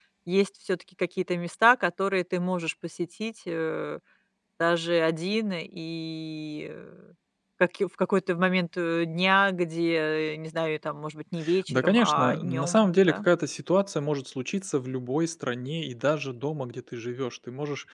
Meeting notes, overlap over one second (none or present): present